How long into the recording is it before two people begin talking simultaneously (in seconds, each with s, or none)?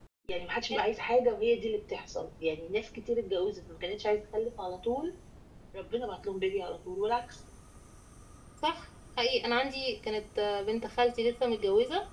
none